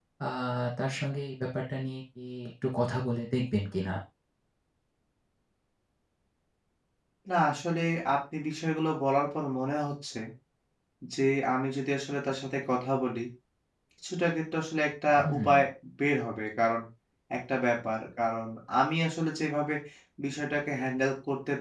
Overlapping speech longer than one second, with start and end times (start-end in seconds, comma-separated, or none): none